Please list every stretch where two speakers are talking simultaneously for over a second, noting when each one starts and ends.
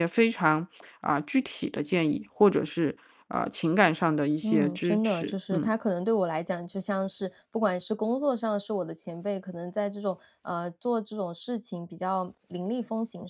4.4-5.7

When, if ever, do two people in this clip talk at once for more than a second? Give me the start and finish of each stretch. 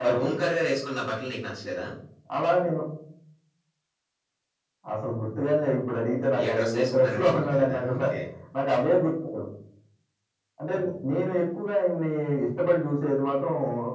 6.4-8.0

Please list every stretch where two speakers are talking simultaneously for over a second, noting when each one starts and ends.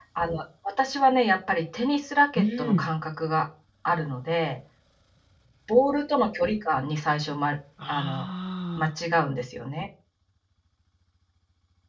none

